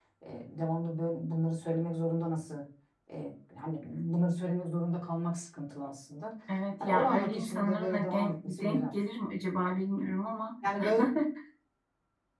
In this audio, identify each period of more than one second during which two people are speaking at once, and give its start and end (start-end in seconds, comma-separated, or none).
6.8-8.8